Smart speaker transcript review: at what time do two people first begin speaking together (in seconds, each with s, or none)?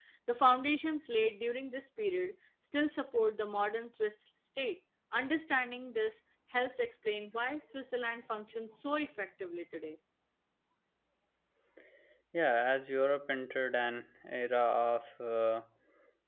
none